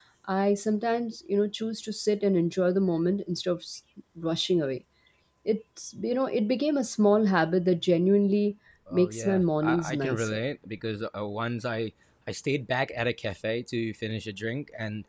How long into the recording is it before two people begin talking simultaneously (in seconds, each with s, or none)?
8.8 s